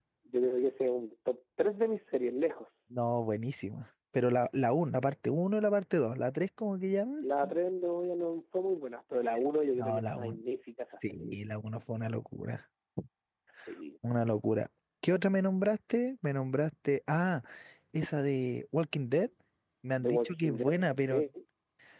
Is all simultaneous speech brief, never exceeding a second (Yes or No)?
No